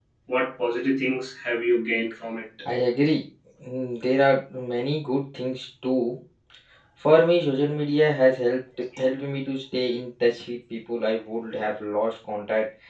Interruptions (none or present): none